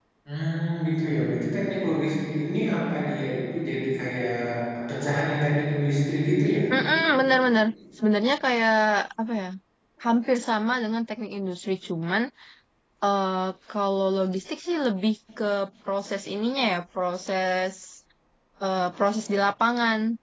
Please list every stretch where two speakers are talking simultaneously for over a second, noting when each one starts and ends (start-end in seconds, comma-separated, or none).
none